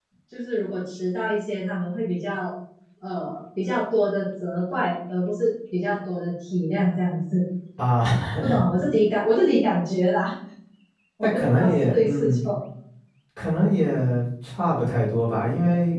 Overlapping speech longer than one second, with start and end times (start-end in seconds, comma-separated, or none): 11.2-12.4